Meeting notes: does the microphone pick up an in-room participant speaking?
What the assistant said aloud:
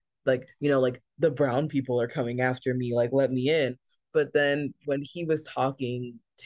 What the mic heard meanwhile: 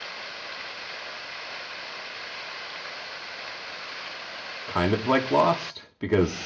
Yes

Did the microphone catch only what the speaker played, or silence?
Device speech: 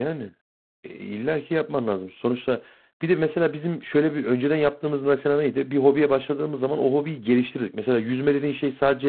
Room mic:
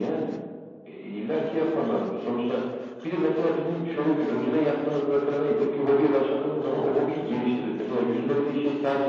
Yes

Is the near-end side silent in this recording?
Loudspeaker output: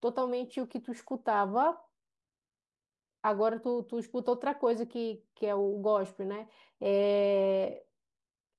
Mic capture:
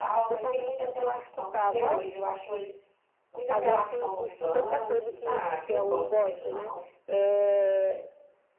No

